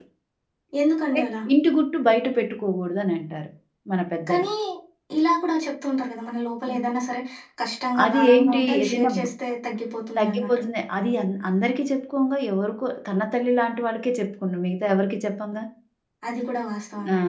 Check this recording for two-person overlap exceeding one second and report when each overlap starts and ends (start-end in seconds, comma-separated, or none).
8.0-9.2